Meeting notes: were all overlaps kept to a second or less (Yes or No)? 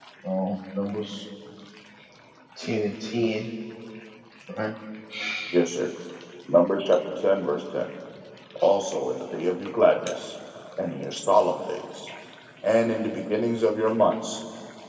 Yes